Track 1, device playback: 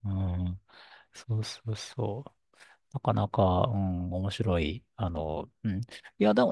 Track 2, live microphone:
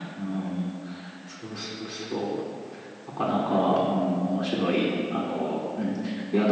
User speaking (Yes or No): No